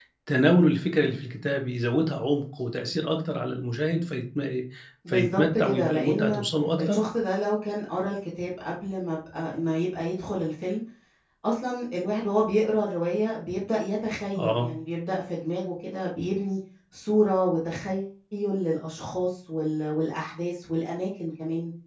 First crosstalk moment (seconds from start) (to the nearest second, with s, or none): 5 s